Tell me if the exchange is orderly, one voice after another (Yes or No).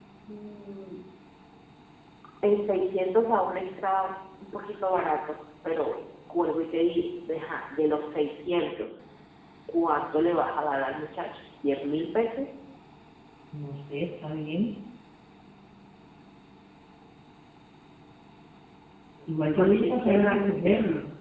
No